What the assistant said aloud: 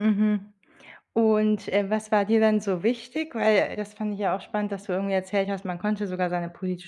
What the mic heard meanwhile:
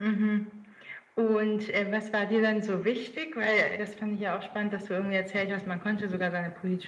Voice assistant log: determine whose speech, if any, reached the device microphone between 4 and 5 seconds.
echo only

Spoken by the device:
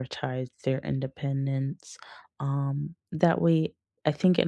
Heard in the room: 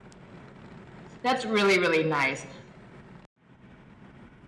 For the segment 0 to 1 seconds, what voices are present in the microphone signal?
neither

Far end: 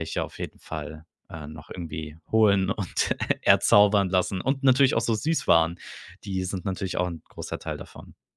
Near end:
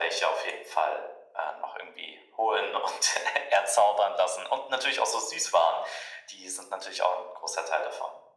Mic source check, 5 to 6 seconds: echo only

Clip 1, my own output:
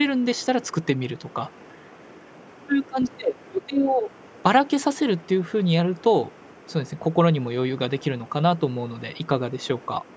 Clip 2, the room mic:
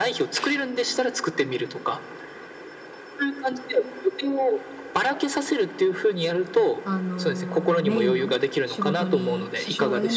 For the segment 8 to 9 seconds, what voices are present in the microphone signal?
both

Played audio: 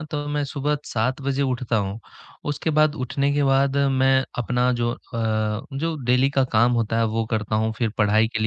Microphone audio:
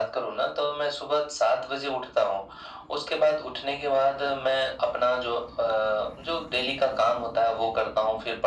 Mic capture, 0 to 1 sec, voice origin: echo only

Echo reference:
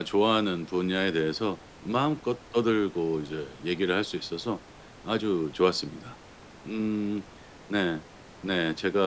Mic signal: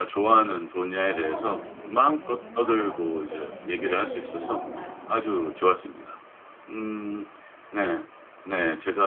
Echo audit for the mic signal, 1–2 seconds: both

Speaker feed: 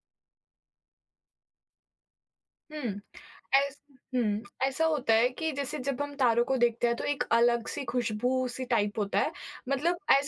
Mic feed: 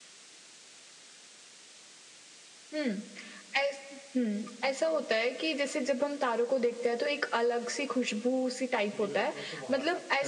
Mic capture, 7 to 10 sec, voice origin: both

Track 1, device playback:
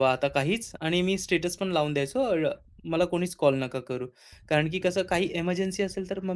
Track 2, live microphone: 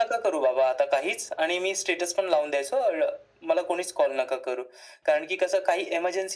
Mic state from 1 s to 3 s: echo only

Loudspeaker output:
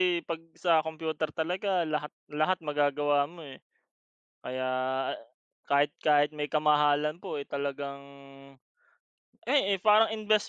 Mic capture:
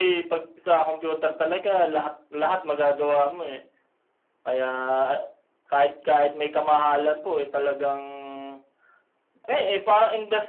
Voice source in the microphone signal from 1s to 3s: echo only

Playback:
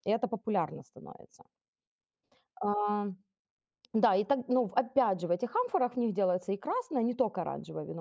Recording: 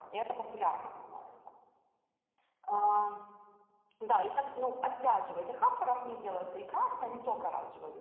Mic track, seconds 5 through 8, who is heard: echo only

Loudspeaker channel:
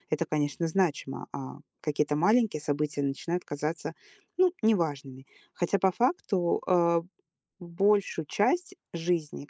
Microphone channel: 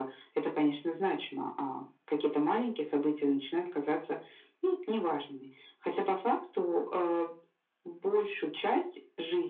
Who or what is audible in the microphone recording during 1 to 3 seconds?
echo only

